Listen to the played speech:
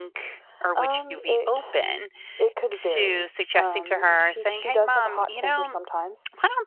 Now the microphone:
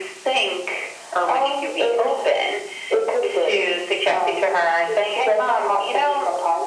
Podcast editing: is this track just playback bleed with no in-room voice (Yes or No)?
Yes